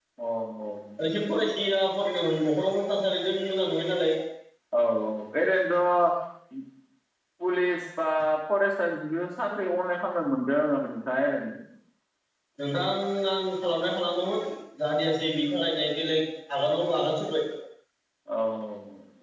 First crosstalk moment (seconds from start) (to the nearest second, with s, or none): none